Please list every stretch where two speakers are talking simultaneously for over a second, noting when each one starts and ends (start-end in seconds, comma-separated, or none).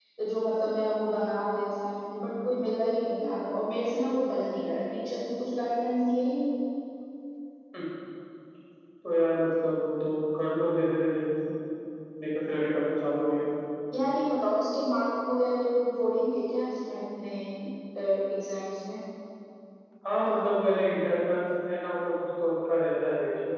none